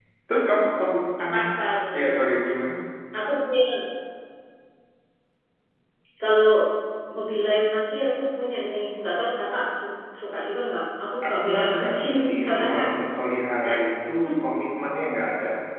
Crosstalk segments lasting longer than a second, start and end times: 11.2-12.8

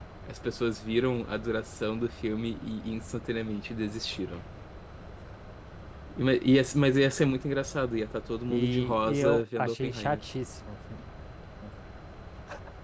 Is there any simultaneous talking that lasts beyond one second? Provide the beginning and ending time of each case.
8.5-10.2

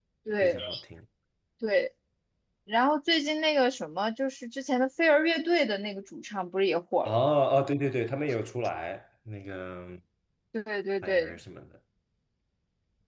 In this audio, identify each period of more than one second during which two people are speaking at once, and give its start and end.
none

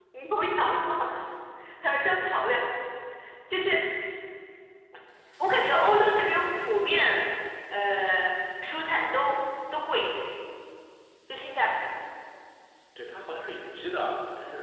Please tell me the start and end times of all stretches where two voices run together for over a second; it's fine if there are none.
none

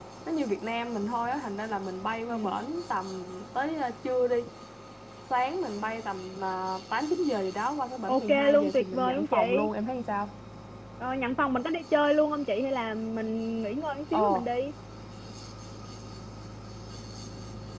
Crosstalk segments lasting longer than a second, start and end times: 8.1-9.7

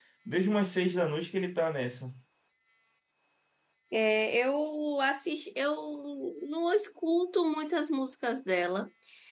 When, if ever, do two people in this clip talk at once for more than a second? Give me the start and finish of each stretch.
none

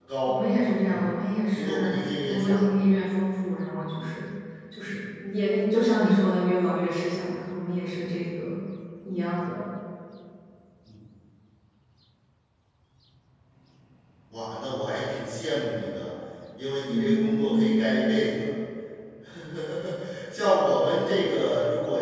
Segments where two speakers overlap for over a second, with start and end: 1.5-3.0, 16.9-18.1

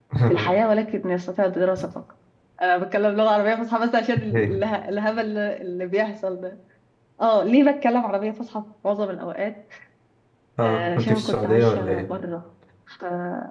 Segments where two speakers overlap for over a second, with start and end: 10.6-12.1

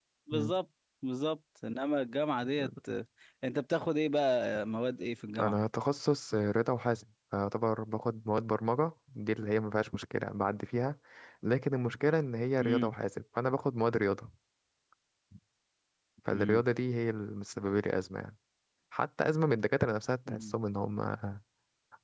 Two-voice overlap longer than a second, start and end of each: none

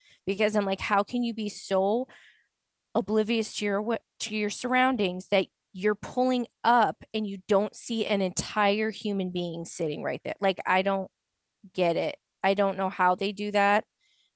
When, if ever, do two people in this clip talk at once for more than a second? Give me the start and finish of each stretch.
none

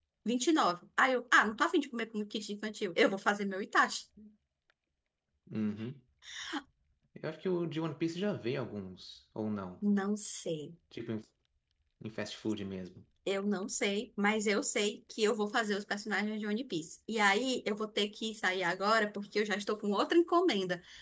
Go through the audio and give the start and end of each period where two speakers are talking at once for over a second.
none

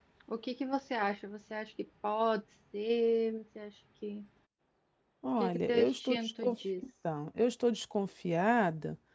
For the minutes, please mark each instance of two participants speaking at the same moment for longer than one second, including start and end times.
5.4-6.8

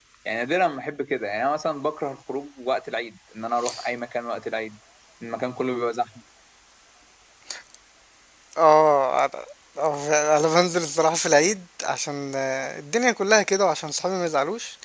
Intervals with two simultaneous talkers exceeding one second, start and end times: none

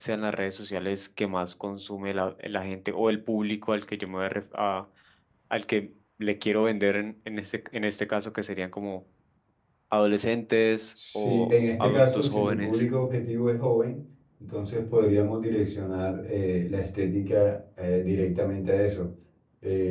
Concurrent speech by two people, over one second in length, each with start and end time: 11.2-12.8

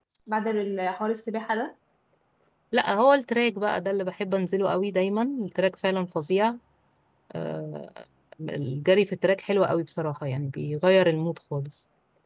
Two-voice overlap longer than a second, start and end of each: none

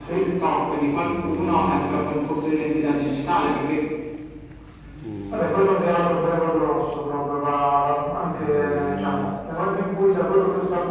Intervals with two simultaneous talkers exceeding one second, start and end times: none

